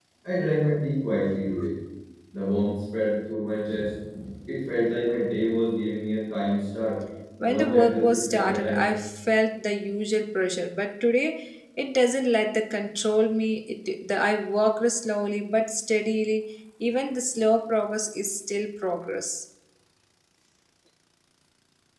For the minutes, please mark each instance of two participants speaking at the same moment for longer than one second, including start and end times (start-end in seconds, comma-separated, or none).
7.4-8.9